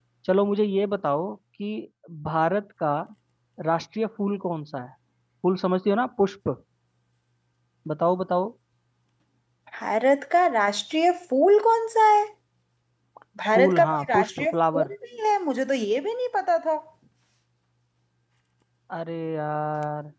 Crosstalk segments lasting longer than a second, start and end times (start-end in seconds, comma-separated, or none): 13.6-14.9